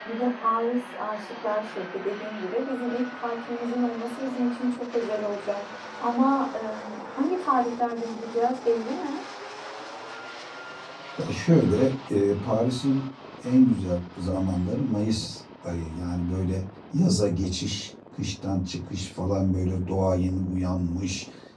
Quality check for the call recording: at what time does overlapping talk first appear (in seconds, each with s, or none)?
none